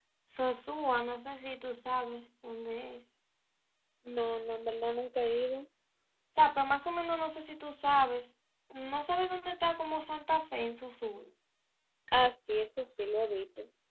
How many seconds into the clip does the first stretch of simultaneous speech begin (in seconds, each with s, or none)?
none